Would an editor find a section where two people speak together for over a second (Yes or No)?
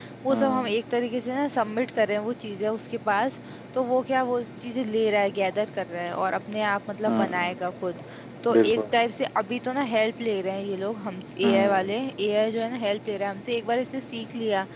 No